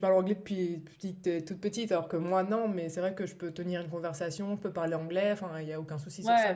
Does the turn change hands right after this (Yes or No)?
Yes